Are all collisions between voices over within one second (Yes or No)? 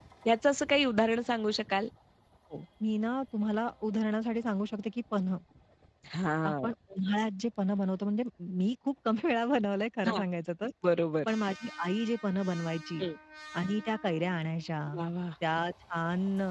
Yes